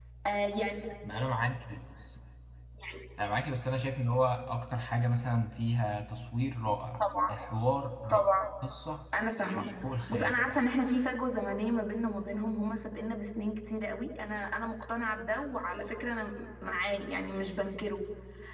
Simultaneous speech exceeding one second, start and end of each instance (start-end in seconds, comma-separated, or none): none